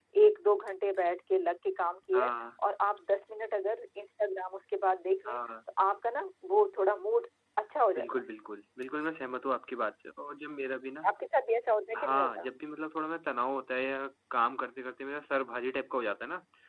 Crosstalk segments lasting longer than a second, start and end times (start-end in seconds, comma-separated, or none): none